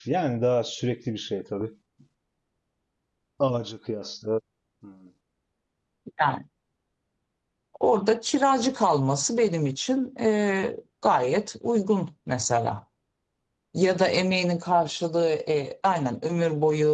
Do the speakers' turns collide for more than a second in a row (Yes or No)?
No